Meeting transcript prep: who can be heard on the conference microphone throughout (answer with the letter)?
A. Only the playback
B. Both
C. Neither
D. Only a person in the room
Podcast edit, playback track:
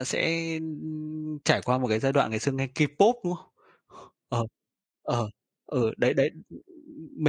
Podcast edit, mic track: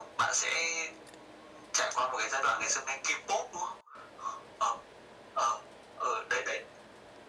A